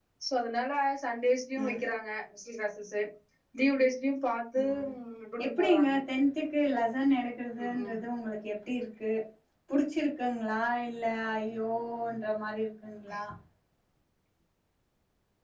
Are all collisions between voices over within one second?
Yes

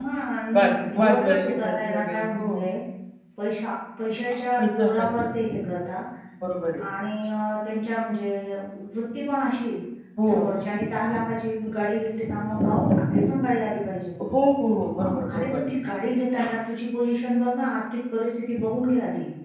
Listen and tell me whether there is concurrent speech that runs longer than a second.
Yes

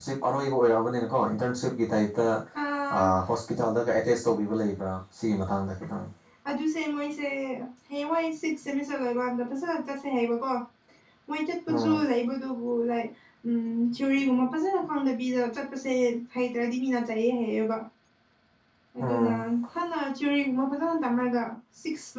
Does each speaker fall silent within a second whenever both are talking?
Yes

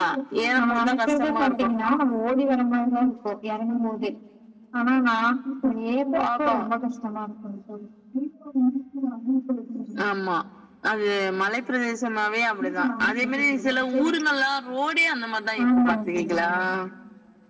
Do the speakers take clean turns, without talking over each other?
No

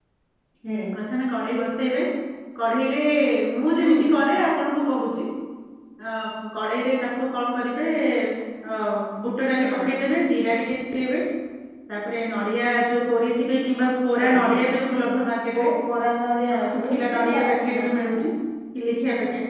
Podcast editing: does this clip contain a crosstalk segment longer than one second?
Yes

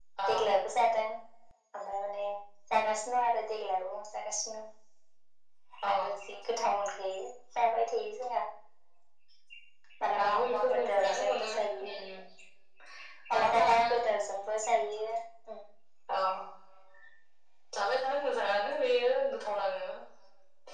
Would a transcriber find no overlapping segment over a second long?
No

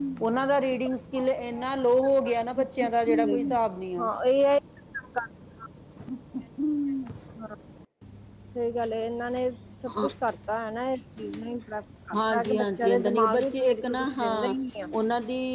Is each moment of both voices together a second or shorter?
No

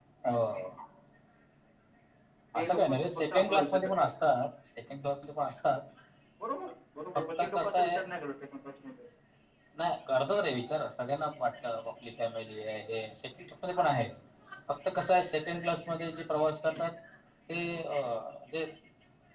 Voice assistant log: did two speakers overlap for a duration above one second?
Yes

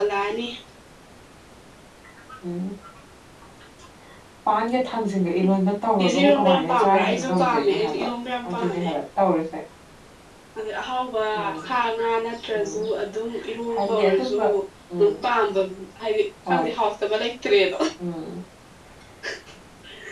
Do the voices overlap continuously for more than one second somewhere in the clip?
Yes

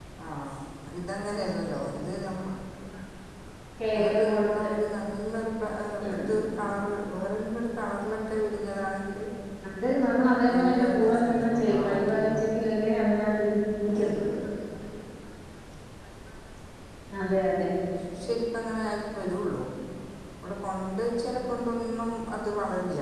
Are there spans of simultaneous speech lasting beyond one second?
Yes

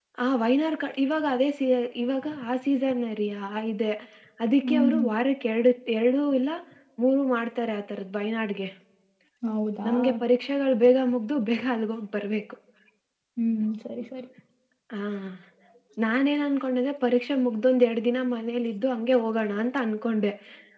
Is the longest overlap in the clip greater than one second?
No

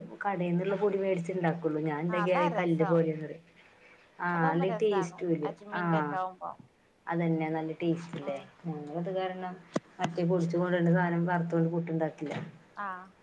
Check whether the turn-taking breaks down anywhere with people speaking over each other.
Yes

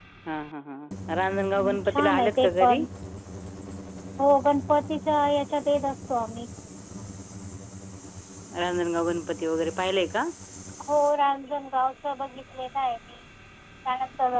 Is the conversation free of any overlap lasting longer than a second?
No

